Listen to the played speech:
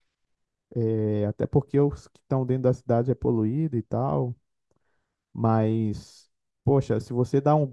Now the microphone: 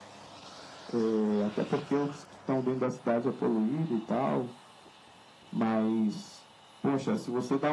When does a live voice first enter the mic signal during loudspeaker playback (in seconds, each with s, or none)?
none